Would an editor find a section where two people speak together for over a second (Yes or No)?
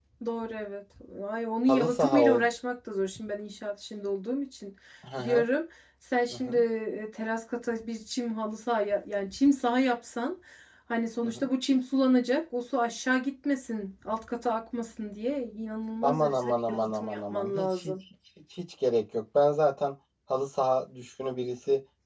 Yes